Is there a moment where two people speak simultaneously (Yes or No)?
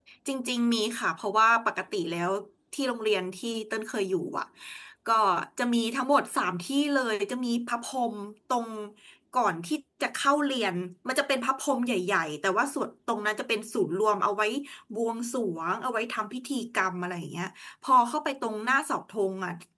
No